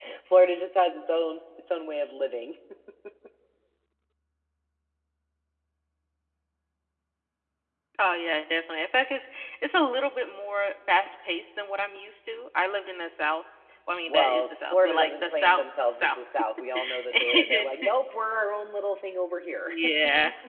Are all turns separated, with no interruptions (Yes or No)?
No